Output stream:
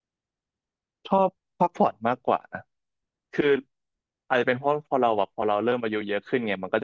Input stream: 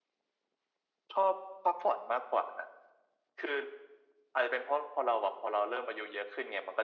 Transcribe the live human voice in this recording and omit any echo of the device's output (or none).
none